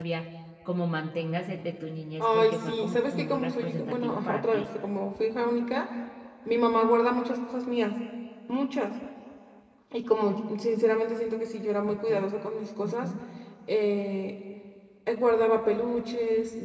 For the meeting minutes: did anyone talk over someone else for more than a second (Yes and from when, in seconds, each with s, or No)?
Yes, from 2.2 s